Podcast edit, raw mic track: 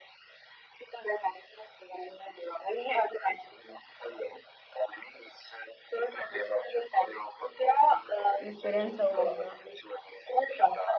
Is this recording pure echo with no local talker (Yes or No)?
No